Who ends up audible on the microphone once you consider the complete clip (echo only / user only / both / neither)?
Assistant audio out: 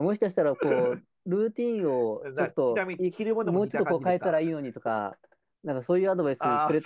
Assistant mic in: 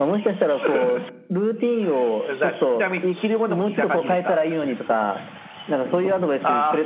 echo only